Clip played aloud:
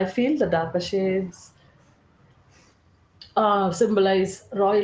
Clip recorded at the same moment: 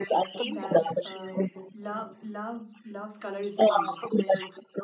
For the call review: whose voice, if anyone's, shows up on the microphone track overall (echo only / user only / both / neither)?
both